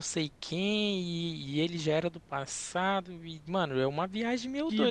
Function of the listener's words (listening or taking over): listening